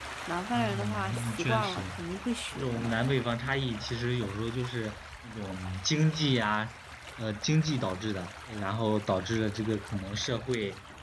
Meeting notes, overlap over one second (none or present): present